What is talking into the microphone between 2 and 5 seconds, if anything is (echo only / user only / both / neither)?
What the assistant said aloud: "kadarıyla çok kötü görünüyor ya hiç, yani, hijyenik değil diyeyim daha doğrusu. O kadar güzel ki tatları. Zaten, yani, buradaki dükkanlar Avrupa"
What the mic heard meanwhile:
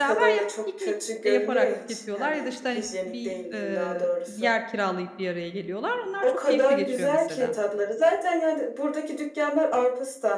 both